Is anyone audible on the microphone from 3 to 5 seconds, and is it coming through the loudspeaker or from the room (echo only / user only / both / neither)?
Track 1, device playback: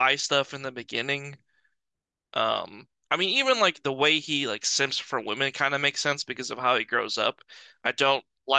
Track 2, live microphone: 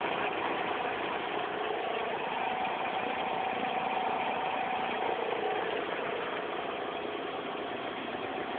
neither